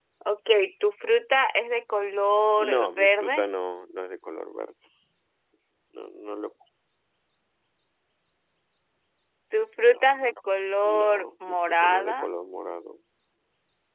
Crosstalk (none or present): present